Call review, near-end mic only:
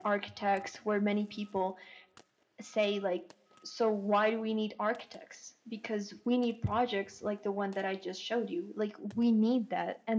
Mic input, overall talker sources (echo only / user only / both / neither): echo only